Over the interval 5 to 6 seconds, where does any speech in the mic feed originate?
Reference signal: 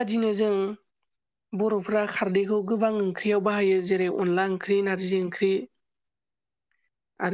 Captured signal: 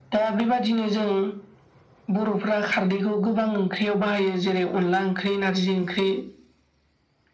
echo only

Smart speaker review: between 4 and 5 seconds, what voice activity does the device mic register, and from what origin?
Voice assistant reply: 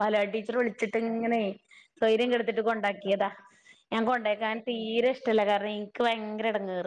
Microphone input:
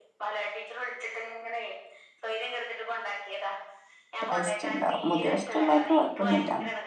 both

